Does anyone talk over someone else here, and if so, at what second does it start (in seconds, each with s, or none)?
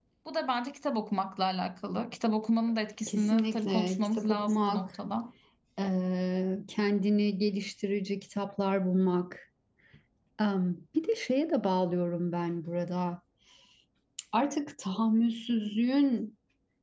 3.1 s